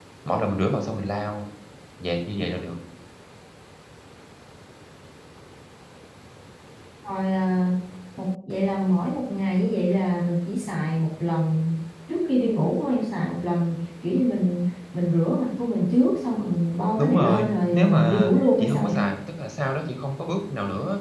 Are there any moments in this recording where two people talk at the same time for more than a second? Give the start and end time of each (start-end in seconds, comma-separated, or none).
17.0-19.0